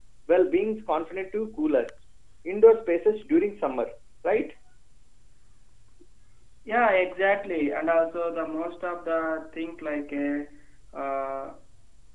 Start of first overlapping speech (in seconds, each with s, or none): none